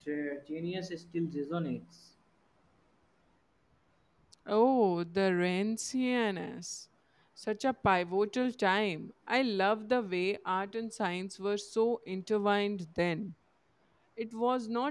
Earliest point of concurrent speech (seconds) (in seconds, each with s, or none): none